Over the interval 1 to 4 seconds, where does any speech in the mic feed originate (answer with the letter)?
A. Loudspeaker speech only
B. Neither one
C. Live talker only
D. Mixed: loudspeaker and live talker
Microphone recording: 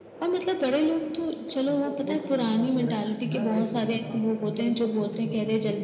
D